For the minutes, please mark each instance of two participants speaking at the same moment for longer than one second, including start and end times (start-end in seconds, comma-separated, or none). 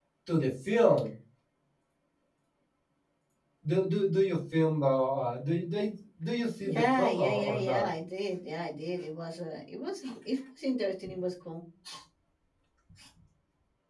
6.6-7.9